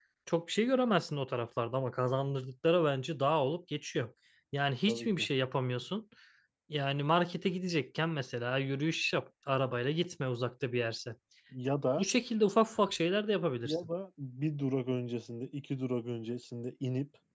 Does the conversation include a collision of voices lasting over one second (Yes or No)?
No